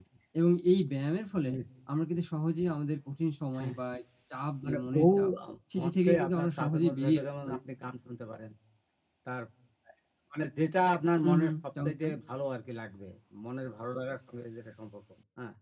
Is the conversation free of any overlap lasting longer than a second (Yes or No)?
No